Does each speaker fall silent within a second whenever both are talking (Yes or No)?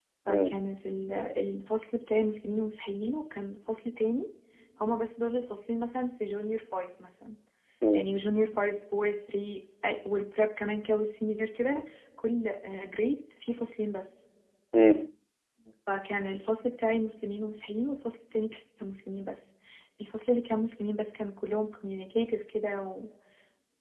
Yes